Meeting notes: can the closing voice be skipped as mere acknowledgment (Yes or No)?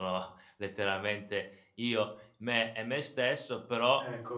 Yes